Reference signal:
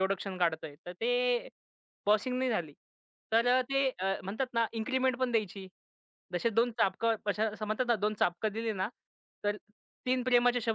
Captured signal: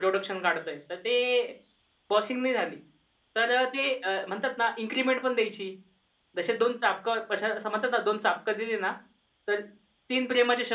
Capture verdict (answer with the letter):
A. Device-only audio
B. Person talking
A